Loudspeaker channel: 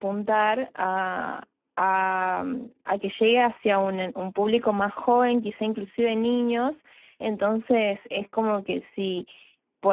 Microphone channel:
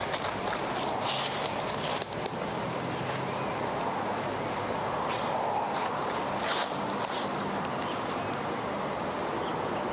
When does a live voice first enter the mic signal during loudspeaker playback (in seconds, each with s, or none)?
none